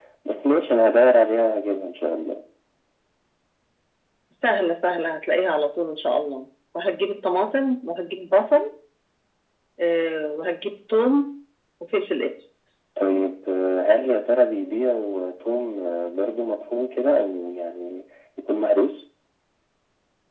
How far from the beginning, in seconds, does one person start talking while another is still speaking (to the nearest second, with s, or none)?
none